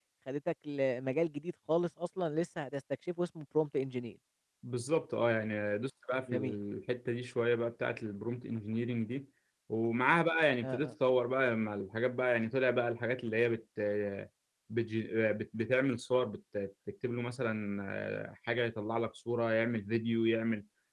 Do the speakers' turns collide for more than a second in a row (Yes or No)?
No